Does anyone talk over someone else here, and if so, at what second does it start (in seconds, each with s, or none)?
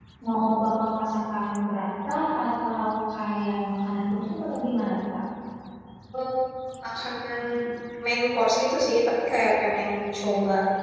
none